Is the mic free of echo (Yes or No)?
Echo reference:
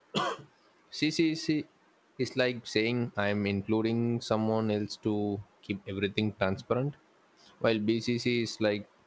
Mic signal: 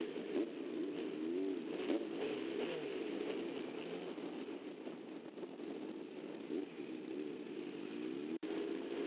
Yes